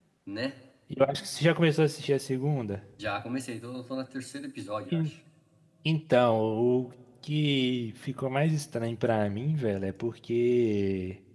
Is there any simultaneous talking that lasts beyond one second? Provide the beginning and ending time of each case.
none

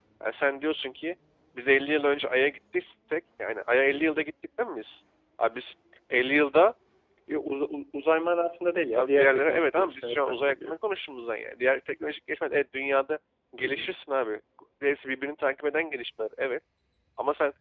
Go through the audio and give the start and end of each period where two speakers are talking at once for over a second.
8.9-10.7

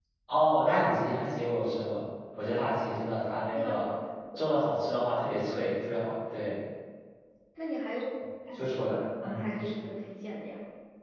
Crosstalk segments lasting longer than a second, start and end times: none

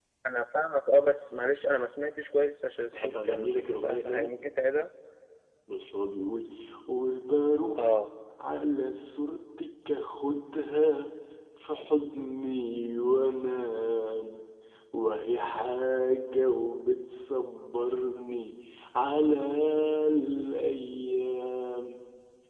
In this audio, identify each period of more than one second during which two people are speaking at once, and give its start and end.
2.9-4.3

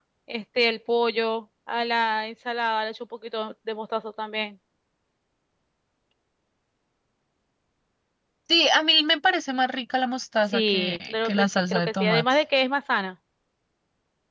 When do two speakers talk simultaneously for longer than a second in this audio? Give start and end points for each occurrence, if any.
10.5-12.4

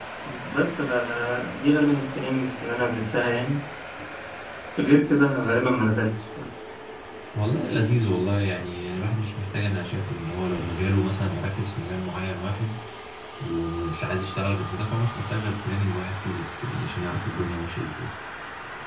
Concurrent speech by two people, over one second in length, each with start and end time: none

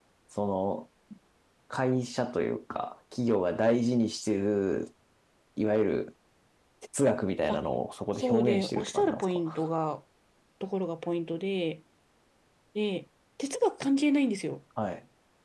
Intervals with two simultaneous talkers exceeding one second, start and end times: 8.2-9.6

